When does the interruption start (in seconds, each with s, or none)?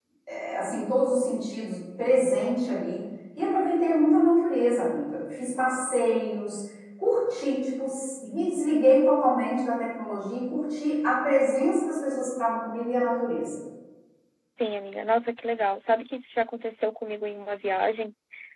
none